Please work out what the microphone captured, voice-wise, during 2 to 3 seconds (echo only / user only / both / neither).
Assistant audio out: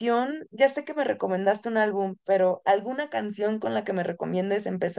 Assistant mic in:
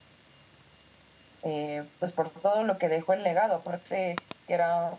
user only